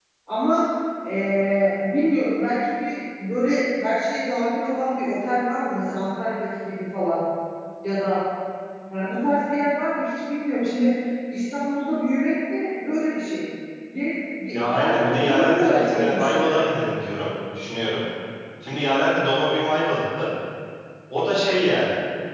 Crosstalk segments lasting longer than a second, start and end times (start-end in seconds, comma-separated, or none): 14.5-16.6